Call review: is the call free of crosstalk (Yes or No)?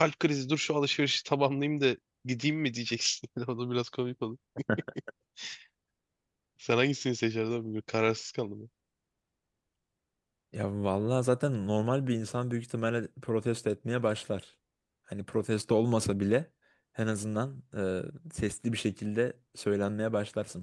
Yes